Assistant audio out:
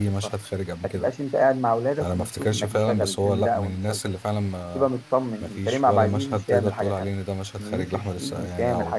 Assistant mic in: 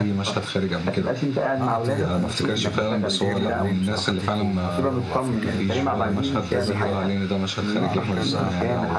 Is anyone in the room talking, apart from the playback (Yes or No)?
Yes